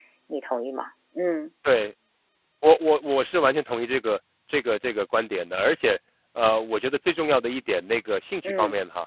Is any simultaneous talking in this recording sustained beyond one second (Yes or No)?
No